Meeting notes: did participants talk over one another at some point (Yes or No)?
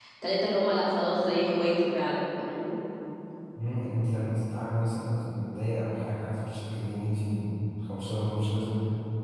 No